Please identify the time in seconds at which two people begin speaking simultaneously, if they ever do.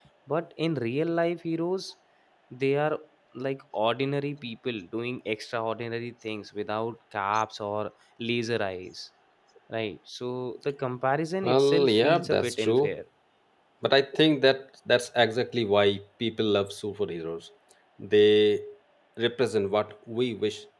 11.4 s

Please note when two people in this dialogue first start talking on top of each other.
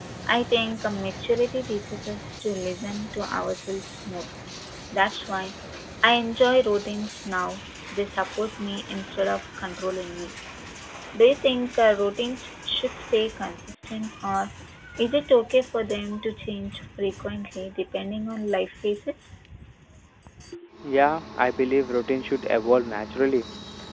none

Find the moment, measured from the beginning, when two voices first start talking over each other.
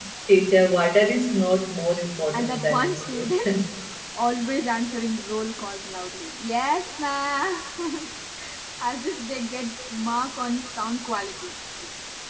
2.3 s

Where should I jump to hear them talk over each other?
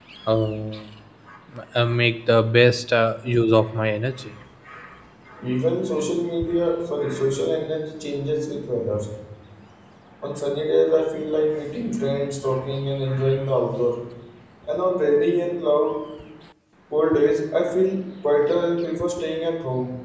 none

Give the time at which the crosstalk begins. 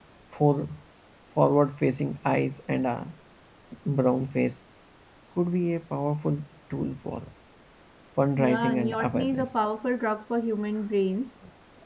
8.4 s

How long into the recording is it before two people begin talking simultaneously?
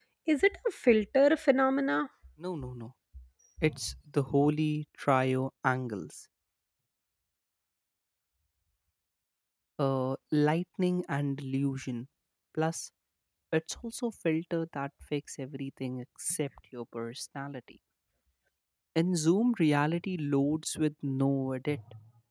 none

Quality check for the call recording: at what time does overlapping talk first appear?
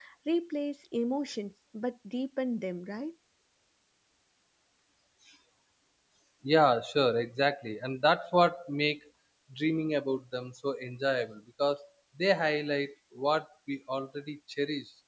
none

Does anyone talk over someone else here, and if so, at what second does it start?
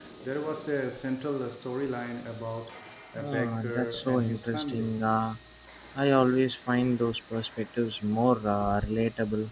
3.2 s

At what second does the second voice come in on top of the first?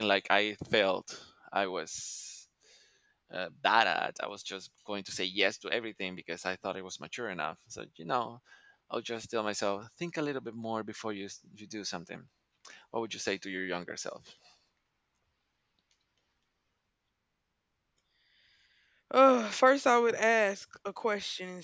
none

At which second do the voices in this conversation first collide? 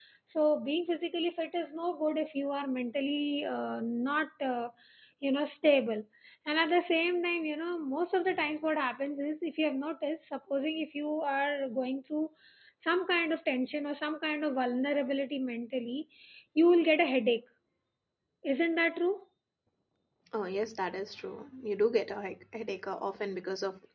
none

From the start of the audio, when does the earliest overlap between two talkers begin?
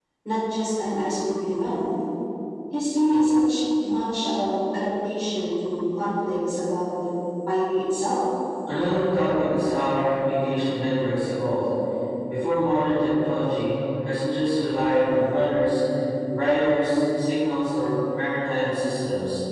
none

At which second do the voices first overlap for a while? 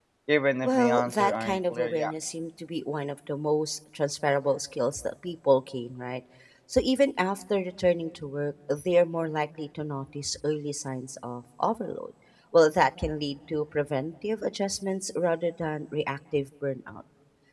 0.6 s

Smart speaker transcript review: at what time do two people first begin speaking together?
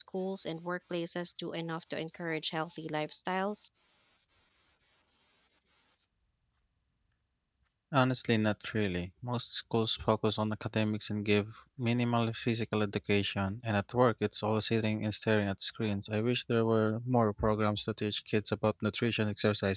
none

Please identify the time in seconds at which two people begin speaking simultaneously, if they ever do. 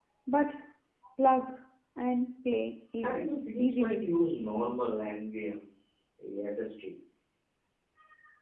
3.0 s

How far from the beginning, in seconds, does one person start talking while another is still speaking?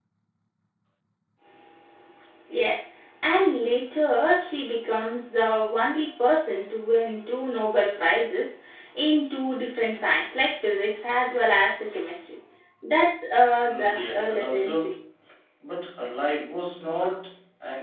13.6 s

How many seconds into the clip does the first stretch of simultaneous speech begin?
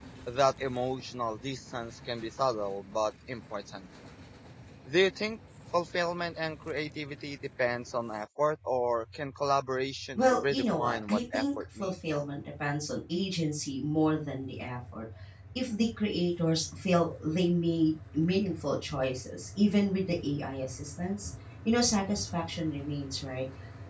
10.2 s

